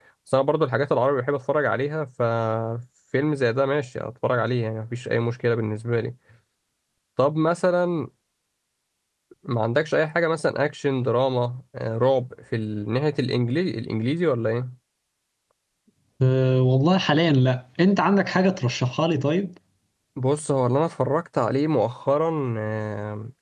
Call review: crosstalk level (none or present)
none